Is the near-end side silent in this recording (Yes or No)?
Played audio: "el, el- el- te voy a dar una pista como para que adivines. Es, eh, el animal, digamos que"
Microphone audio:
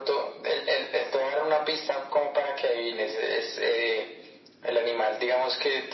Yes